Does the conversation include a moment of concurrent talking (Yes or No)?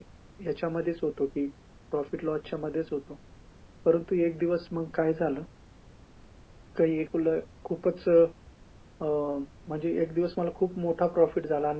No